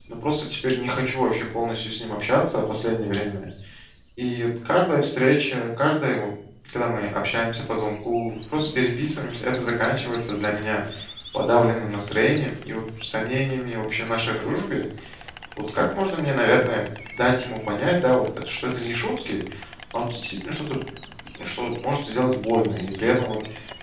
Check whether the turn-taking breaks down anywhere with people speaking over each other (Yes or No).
No